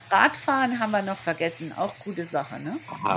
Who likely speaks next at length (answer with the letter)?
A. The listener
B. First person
A